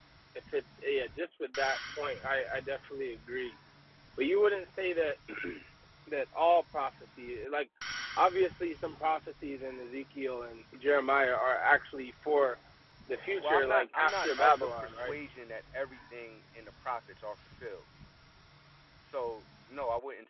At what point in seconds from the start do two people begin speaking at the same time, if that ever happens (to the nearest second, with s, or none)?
13 s